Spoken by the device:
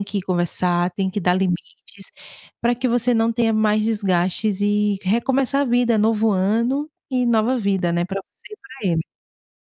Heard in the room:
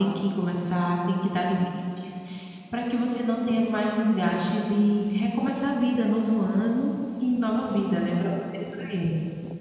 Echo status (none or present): present